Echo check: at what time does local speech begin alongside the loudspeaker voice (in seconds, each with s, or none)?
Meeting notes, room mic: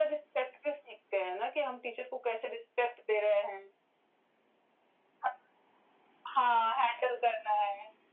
none